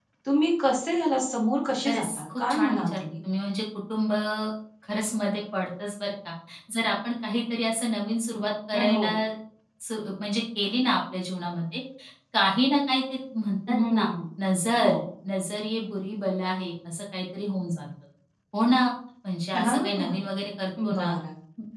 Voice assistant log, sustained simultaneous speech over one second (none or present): present